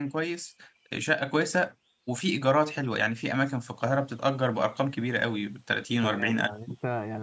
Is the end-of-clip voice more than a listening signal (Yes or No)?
Yes